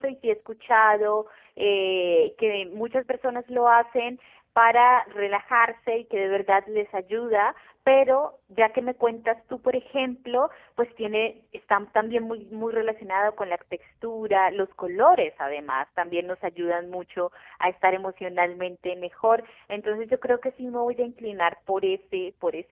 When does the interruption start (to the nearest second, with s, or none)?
none